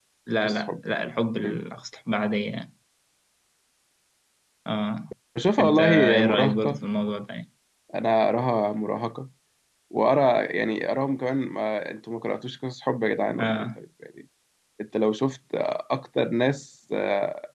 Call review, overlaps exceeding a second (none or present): present